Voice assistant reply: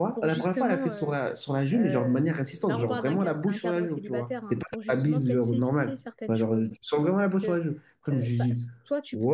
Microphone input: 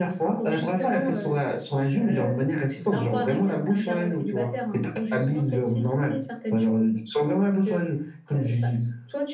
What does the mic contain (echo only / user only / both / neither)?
echo only